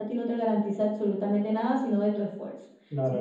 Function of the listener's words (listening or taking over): taking over